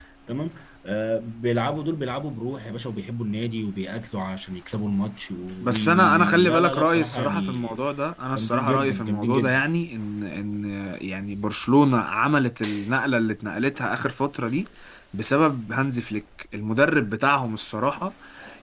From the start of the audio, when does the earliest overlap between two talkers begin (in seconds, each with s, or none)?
5.6 s